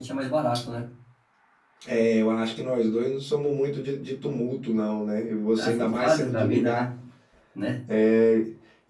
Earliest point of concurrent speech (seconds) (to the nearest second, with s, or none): 6 s